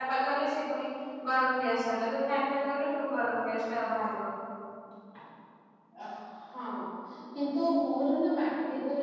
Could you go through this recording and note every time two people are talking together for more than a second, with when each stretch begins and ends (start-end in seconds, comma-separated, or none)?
none